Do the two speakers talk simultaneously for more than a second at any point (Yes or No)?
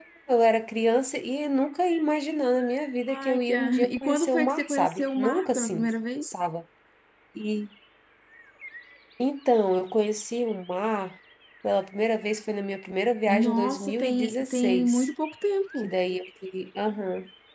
Yes